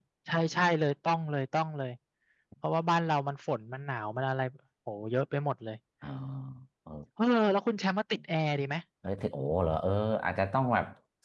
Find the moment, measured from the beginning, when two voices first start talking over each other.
none

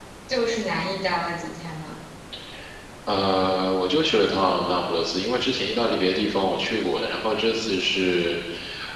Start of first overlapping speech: none

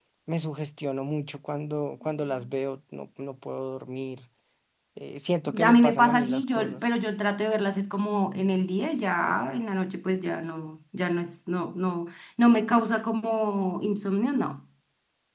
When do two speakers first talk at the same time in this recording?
5.7 s

